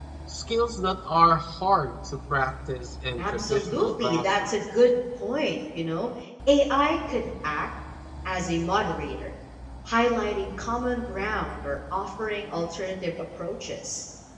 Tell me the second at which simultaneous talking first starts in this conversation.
3.2 s

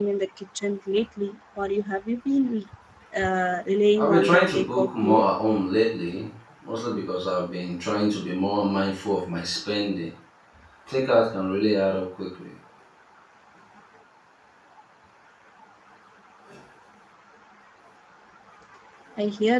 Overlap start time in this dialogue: 4.0 s

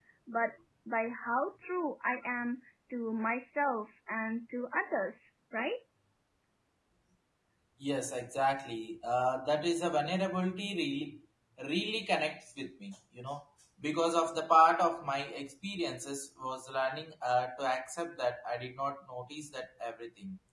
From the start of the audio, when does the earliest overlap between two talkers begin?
none

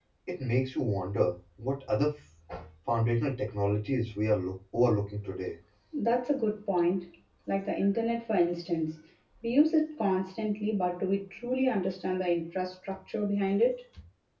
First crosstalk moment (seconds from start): none

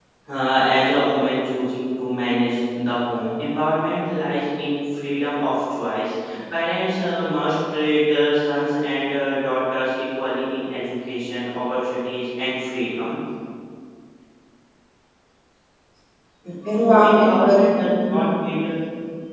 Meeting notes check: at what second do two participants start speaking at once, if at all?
16.7 s

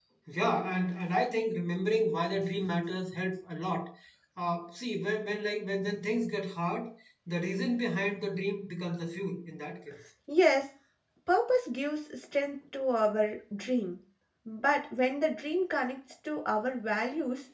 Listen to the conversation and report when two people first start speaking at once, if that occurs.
none

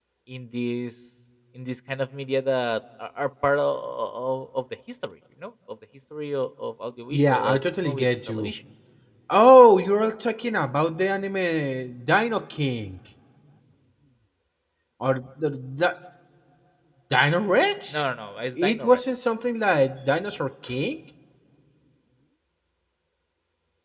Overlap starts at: 7.1 s

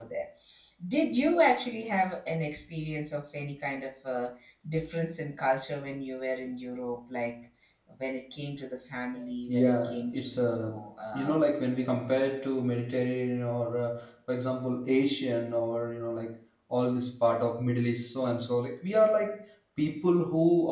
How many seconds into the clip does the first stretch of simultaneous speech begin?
9.5 s

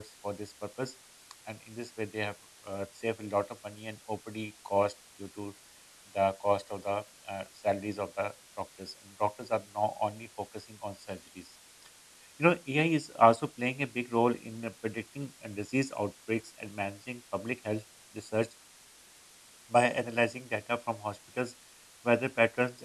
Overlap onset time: none

